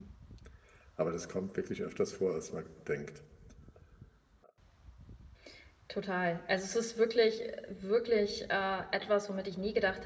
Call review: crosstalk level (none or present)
none